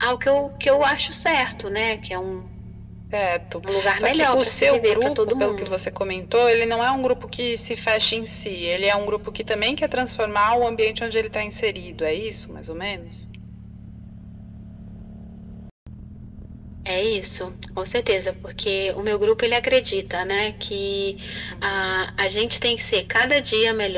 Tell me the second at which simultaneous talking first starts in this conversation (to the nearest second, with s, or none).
4 s